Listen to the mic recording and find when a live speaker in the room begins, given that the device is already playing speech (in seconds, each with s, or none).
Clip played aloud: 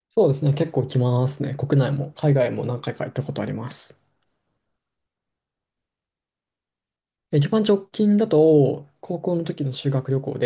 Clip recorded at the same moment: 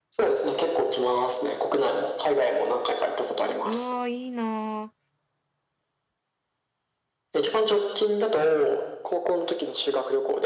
3.6 s